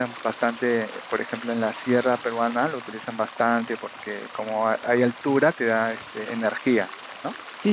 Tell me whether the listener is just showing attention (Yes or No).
No